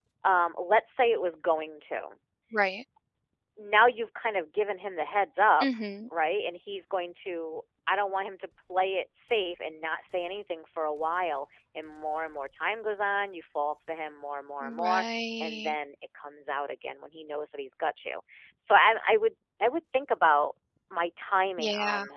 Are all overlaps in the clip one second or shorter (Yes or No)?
Yes